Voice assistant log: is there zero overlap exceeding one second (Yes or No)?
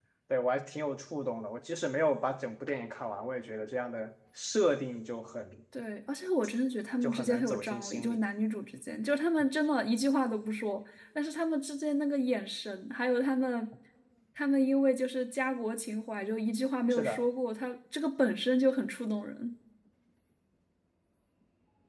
No